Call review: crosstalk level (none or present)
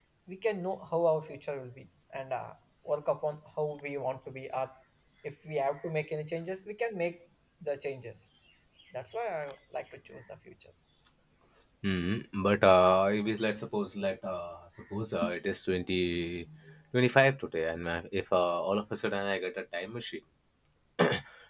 none